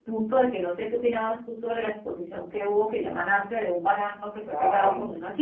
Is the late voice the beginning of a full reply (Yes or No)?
Yes